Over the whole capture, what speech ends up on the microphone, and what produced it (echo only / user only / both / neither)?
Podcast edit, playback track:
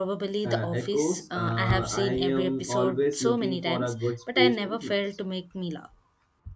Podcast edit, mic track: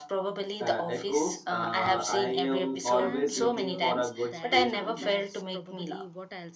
both